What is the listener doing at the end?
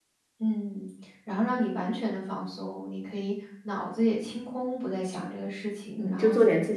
taking over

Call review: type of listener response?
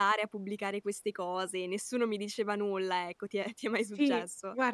taking over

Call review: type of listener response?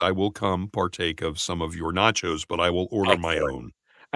taking over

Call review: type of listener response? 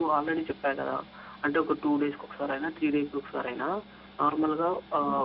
listening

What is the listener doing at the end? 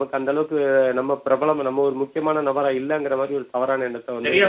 taking over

